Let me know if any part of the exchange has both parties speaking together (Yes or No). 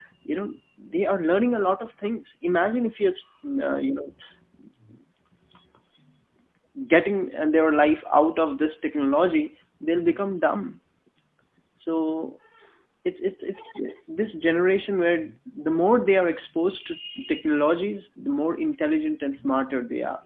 No